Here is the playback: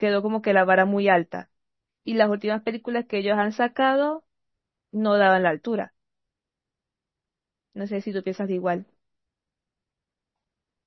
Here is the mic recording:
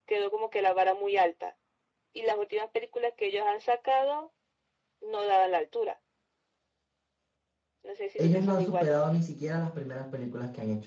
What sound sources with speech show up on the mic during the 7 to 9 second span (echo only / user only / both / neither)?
both